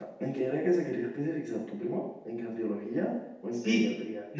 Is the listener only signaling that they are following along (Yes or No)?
No